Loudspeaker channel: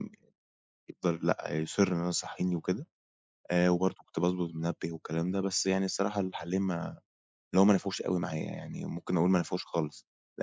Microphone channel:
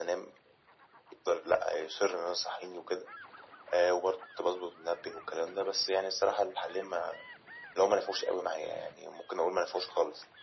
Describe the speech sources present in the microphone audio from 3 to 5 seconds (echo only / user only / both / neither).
echo only